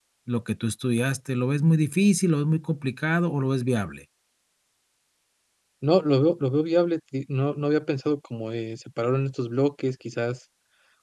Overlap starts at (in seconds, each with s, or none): none